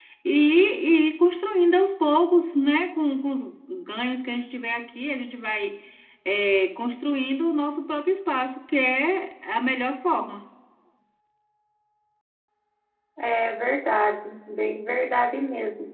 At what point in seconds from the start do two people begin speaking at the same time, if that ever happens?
none

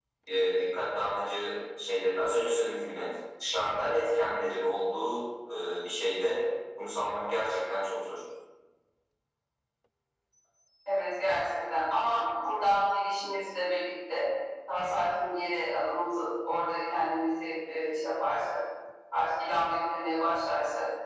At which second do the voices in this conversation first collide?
none

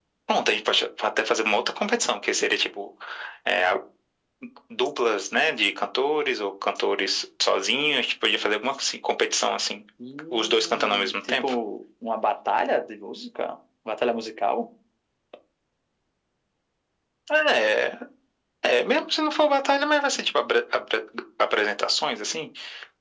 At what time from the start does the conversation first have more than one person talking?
10.3 s

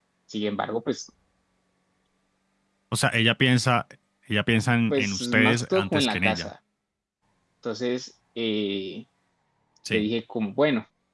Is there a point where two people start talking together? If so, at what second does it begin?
4.9 s

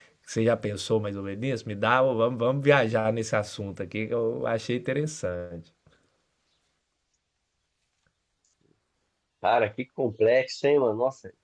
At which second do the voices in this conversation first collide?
none

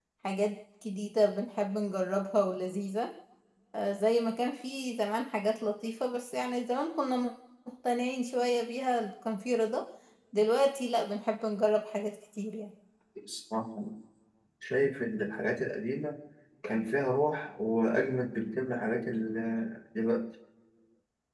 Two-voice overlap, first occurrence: none

